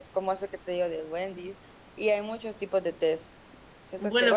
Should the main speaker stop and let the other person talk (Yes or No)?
Yes